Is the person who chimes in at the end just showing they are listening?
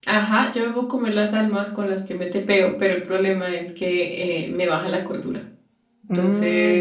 No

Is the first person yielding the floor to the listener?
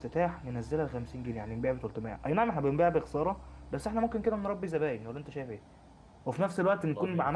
No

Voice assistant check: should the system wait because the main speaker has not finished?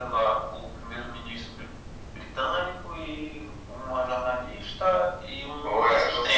No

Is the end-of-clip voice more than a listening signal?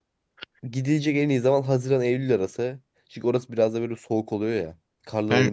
No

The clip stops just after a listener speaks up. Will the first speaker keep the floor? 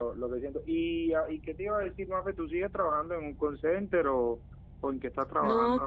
No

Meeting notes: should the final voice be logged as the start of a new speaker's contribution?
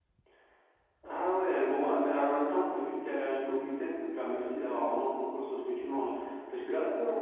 No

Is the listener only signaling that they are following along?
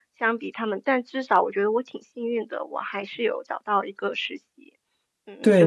No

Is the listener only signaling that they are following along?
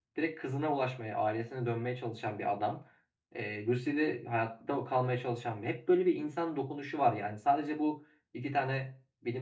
Yes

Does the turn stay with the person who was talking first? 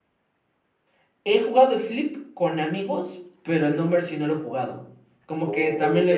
No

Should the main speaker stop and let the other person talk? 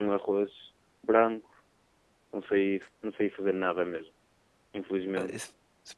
Yes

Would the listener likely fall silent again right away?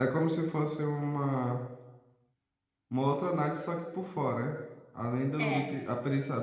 Yes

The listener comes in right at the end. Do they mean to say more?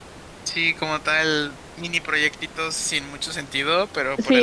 No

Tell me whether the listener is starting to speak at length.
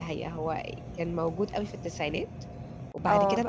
No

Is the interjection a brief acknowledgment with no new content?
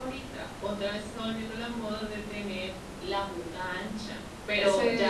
Yes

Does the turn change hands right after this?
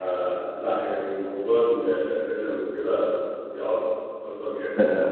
Yes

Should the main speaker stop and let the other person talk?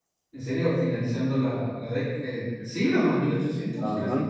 Yes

